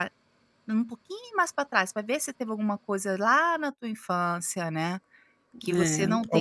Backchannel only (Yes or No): Yes